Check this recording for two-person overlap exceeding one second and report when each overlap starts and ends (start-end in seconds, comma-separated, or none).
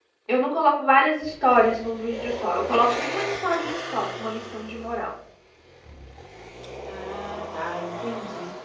none